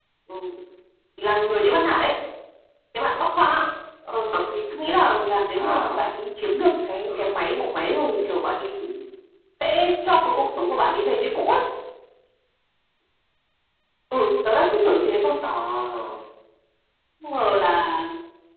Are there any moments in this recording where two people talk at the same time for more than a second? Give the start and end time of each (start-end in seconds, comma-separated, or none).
none